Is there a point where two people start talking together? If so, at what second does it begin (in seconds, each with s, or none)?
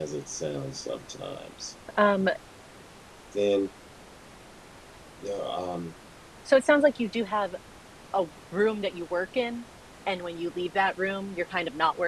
none